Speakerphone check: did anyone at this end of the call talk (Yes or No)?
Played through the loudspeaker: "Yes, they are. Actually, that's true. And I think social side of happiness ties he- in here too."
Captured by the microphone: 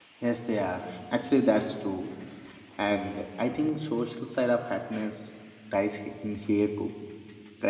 No